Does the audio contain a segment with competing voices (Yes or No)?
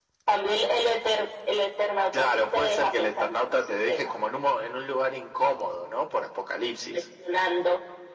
Yes